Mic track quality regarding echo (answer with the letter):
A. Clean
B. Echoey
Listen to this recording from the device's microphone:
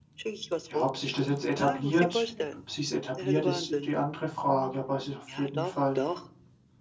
B